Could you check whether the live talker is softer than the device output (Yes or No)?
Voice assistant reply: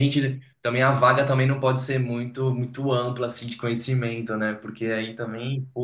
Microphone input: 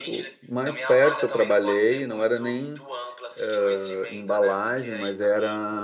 No